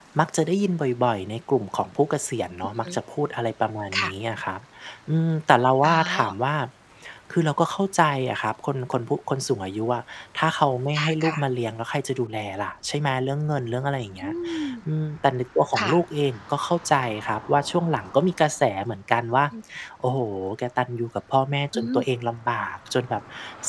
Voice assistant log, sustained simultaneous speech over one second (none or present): none